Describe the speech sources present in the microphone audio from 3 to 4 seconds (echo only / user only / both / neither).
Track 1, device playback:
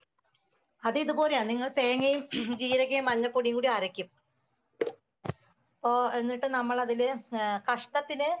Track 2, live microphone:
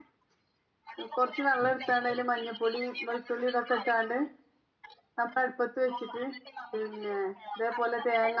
both